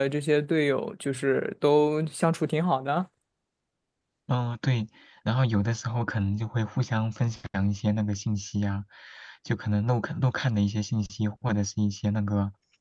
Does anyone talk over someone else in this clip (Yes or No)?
No